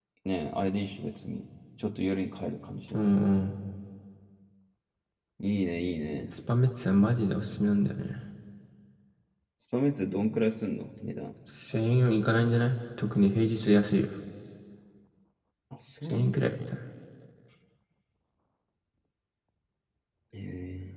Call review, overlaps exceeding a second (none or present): none